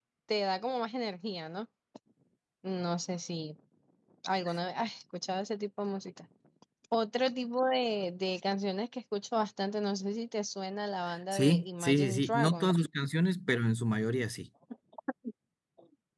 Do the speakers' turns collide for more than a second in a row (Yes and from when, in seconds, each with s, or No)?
Yes, from 11.3 s